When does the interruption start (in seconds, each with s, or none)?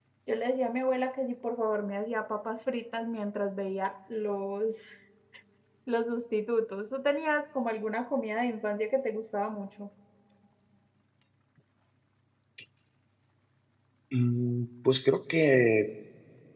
none